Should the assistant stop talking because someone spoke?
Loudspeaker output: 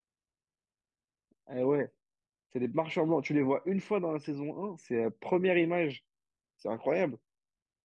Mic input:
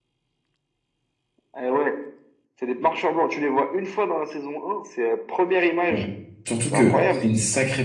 Yes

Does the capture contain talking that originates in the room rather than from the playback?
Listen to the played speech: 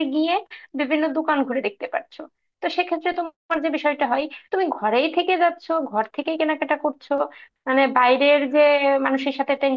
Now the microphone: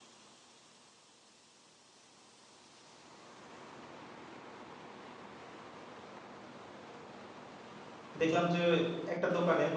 Yes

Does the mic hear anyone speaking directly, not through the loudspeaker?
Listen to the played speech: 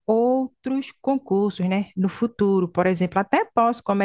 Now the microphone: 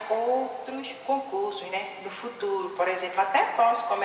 No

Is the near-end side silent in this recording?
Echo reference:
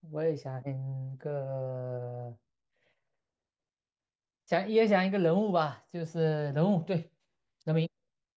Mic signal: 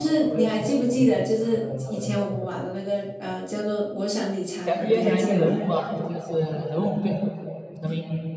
No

